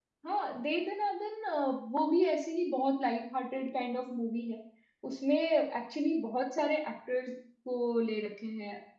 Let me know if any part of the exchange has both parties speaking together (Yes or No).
No